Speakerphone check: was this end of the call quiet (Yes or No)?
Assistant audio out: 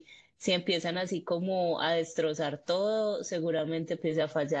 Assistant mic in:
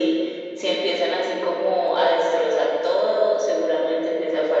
Yes